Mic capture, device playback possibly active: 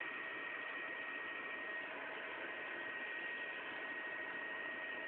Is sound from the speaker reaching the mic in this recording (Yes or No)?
No